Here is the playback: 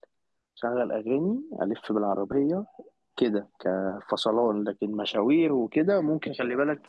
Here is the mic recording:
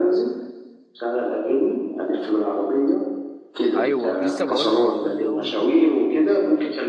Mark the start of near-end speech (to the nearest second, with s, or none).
4 s